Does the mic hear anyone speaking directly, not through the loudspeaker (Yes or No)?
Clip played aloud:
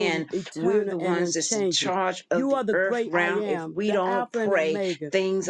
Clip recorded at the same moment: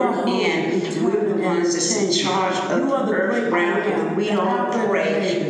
No